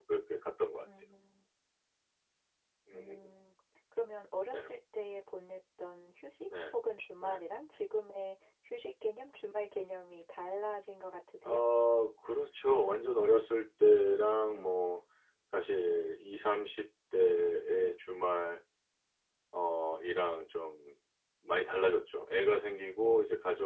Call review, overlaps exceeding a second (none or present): none